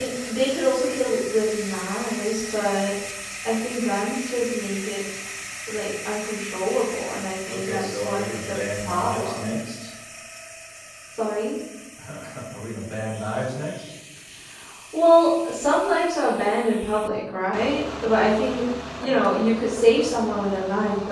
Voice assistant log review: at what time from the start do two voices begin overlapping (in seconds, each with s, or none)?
7.5 s